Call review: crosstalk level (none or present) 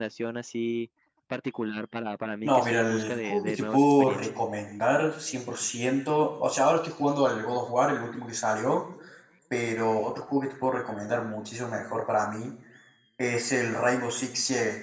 present